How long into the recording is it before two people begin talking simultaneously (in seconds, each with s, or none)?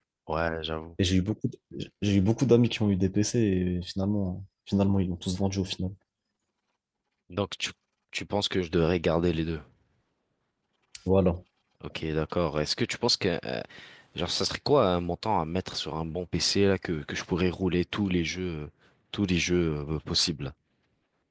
none